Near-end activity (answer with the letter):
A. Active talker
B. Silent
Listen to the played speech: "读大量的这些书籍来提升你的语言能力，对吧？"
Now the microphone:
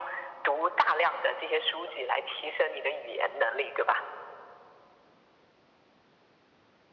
B